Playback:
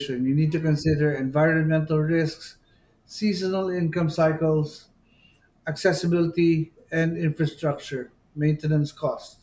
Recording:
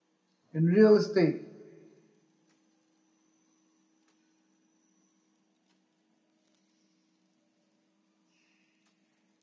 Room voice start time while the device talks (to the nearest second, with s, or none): 1 s